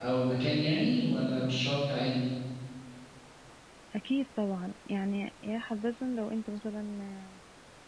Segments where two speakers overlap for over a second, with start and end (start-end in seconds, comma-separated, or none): none